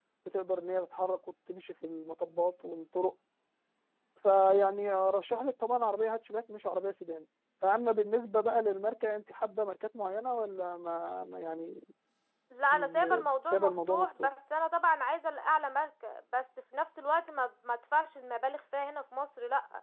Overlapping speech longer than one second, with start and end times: 12.7-14.3

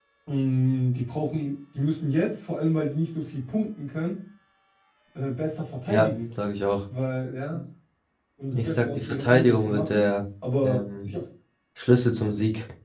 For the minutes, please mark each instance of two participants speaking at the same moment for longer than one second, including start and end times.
8.5-10.1

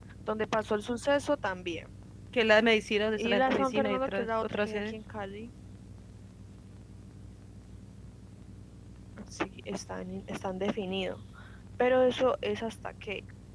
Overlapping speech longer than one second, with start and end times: 3.2-5.0

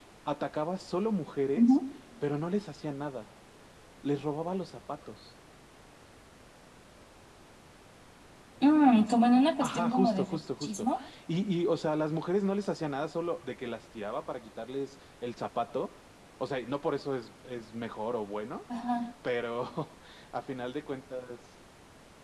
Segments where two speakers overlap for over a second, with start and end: 9.6-10.9

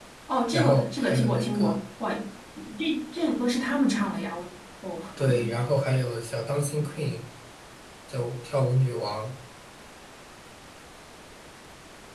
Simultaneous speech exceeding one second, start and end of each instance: 0.5-1.8

